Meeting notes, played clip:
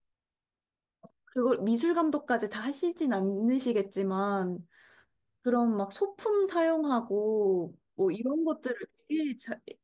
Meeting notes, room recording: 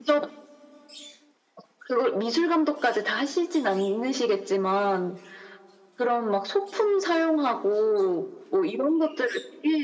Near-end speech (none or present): none